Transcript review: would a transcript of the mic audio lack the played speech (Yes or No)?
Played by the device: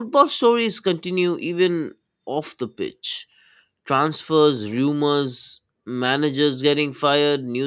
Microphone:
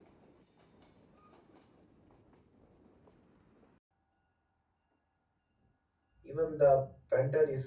Yes